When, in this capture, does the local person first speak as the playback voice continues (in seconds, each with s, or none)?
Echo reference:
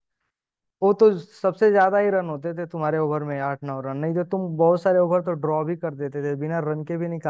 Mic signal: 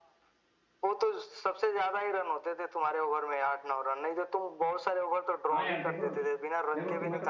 5.5 s